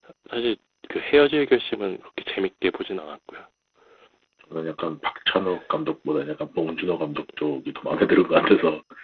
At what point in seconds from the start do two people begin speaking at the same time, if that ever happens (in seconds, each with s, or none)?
none